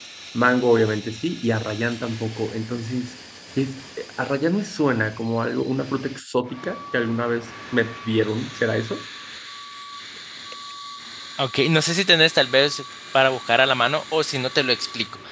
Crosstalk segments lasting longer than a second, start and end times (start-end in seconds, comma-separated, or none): none